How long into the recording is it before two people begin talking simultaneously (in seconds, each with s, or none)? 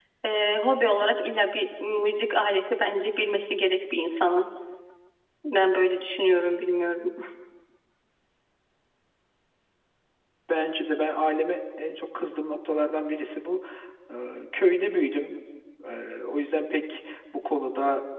none